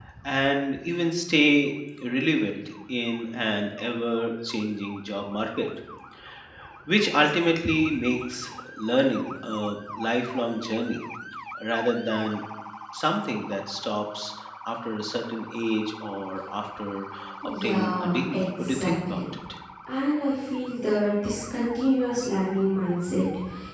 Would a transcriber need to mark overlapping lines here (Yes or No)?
Yes